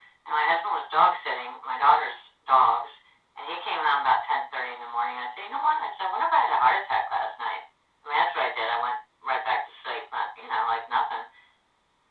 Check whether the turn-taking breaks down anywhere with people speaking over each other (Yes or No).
No